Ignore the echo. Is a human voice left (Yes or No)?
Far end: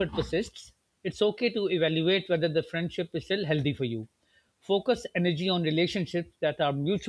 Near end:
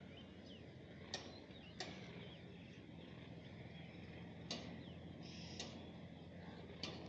No